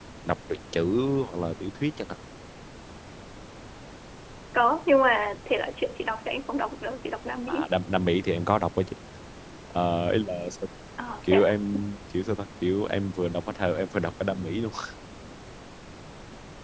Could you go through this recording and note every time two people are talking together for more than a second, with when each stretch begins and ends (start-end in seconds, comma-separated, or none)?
none